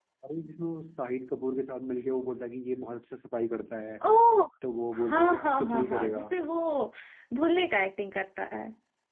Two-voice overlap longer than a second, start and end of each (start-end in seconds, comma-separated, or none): 5.0-6.2